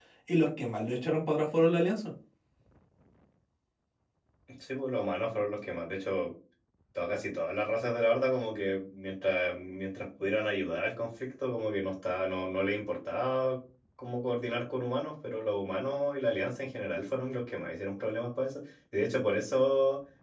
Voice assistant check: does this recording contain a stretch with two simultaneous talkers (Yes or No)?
No